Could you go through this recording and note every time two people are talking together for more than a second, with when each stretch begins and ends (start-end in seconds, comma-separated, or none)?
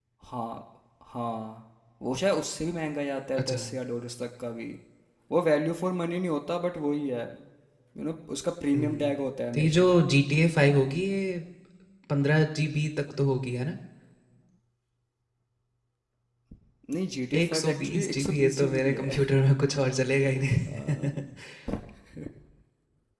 17.4-19.2